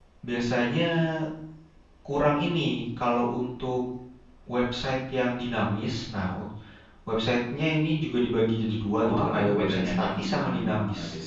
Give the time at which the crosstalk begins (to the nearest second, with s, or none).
9 s